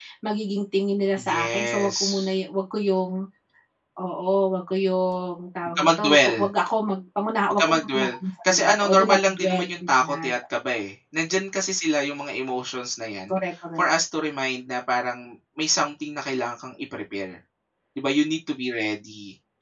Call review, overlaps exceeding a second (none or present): present